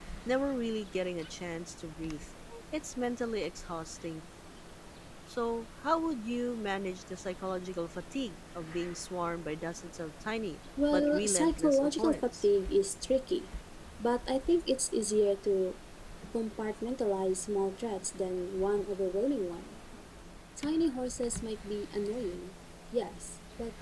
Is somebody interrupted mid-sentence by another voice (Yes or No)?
Yes